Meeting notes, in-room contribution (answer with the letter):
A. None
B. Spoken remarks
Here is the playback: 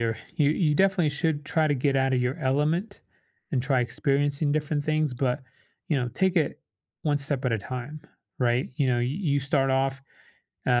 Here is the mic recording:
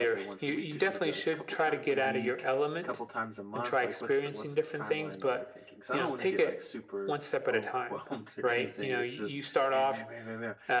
B